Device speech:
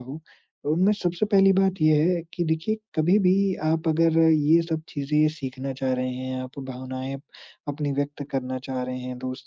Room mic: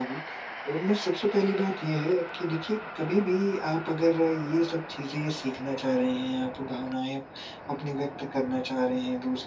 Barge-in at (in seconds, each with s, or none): none